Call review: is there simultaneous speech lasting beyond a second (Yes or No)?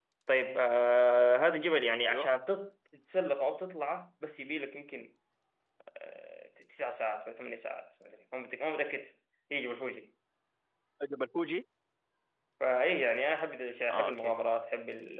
No